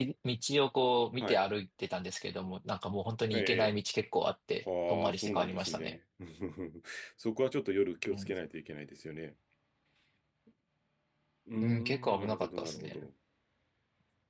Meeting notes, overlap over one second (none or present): present